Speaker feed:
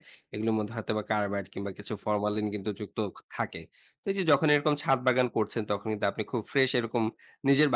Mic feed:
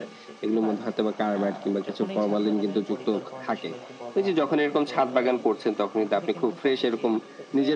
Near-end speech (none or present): present